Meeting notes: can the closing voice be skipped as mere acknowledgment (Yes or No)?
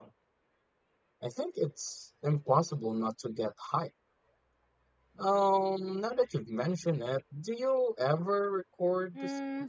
No